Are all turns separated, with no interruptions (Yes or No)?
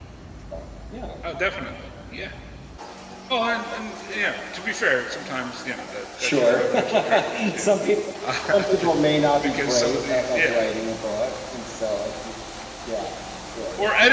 No